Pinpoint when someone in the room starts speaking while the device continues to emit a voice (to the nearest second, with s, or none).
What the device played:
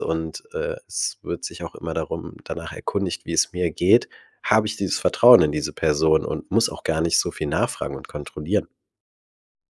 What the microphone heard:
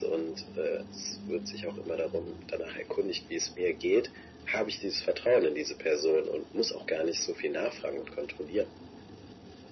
none